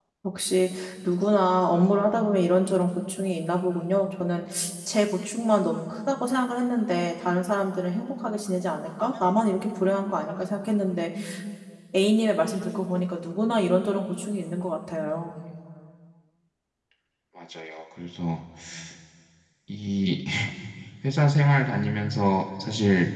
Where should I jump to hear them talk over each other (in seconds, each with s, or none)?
none